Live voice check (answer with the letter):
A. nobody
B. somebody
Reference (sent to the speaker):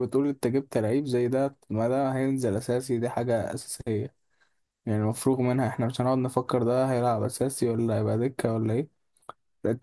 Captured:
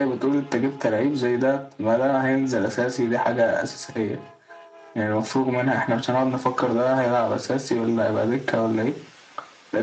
A